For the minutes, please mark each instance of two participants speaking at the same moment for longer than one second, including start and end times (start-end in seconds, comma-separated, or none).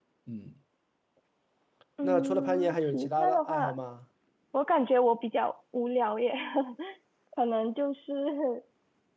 2.0-3.8